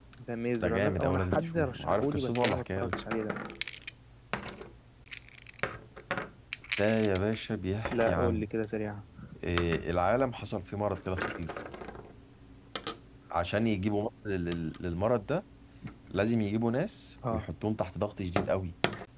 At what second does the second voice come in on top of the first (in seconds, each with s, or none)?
0.6 s